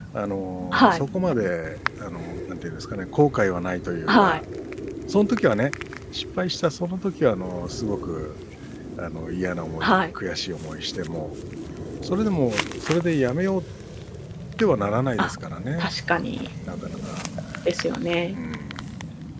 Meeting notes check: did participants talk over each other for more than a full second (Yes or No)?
No